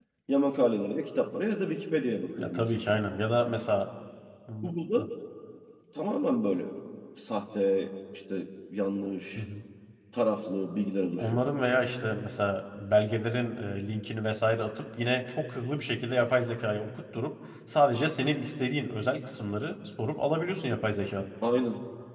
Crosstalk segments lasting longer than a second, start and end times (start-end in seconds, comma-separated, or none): none